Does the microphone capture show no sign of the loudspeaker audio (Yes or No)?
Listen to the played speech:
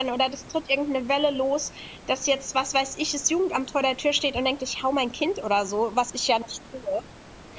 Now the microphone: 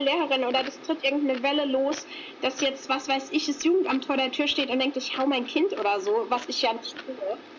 No